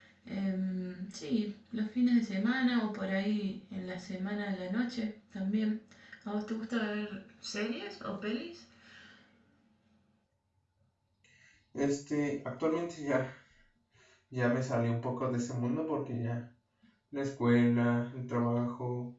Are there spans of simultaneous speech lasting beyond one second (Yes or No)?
No